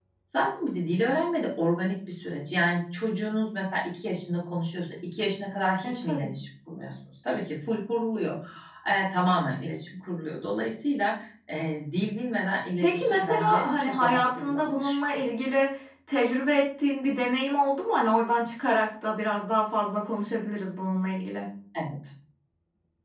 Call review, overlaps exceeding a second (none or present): present